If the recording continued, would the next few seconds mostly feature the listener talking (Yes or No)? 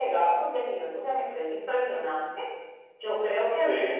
No